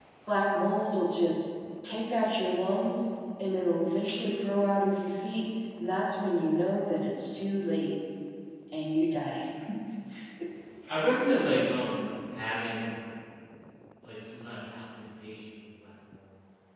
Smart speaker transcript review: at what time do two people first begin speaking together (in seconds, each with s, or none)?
none